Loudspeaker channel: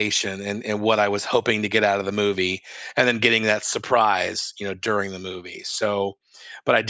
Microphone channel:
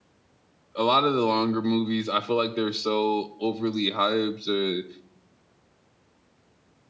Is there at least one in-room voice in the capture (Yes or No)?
Yes